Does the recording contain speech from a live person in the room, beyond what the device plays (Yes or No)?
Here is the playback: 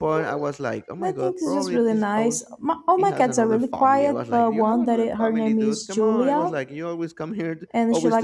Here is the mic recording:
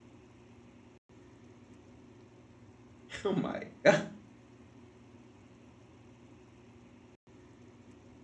Yes